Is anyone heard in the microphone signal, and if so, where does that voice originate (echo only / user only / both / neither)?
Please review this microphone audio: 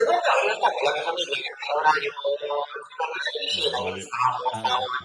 both